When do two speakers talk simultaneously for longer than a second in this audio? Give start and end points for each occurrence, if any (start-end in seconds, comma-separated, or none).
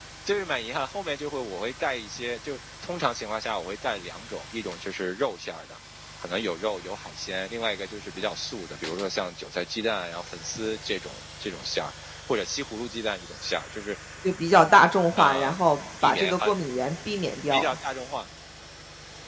none